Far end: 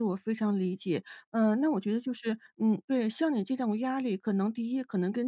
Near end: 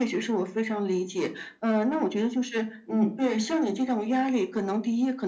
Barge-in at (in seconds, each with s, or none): none